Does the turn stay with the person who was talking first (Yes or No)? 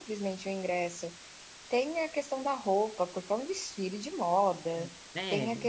Yes